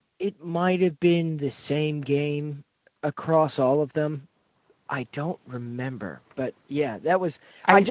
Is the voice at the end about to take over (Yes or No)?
No